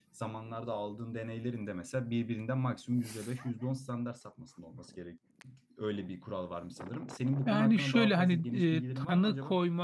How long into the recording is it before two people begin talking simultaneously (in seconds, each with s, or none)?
7.5 s